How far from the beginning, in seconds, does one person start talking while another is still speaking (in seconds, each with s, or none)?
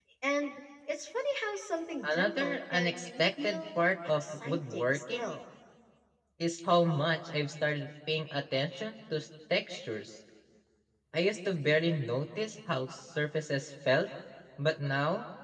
2.0 s